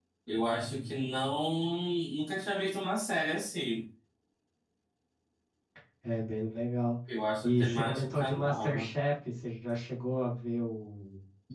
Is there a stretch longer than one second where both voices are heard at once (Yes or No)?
Yes